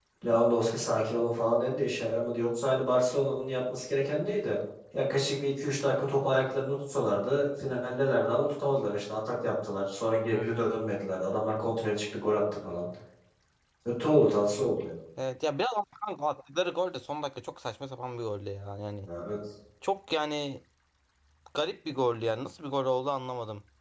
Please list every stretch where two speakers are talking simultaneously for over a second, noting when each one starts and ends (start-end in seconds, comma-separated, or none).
none